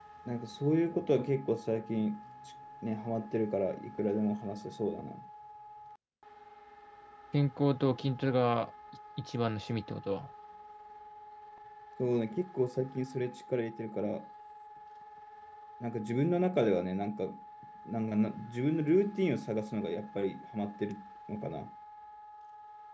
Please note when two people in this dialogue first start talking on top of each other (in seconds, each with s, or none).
none